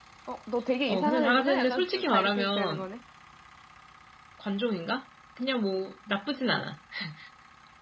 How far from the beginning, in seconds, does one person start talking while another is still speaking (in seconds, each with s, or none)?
0.9 s